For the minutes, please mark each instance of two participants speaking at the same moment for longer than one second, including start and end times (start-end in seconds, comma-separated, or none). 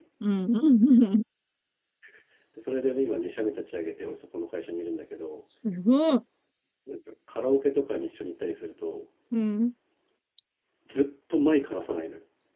none